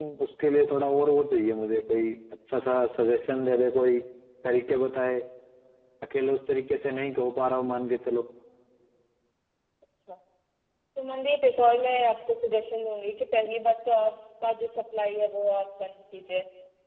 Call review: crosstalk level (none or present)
none